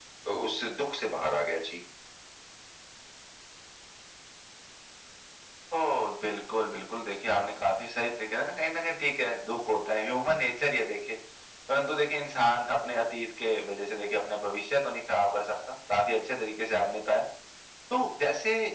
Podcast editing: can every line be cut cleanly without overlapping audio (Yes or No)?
Yes